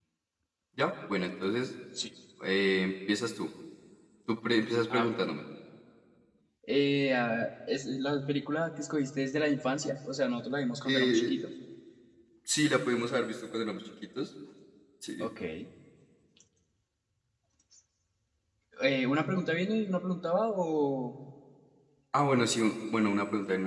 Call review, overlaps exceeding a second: none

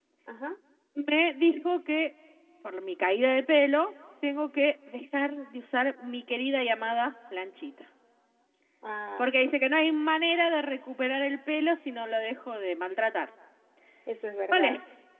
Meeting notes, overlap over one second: none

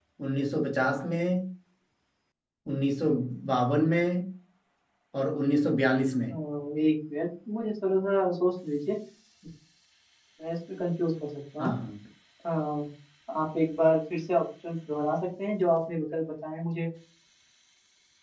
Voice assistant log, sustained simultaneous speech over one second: none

